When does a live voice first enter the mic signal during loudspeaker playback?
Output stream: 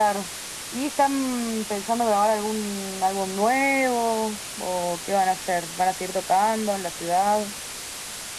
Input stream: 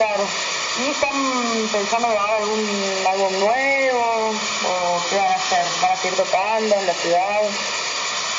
none

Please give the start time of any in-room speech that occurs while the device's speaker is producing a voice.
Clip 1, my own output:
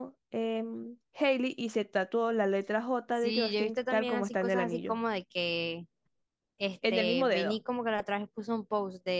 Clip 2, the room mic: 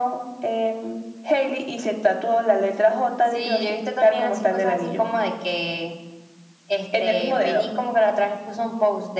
none

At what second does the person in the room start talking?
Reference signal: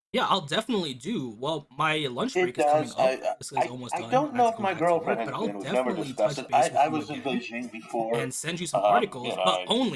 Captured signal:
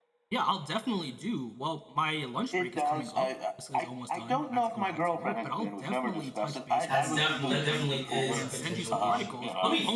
7 s

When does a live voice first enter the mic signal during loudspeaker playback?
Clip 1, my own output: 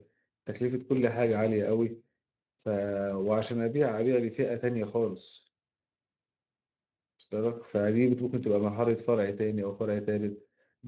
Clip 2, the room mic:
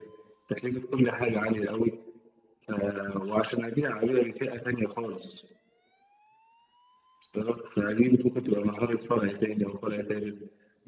none

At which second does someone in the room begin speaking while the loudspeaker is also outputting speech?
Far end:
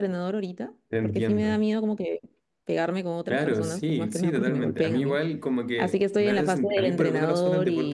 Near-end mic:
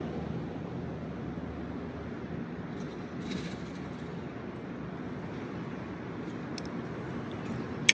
none

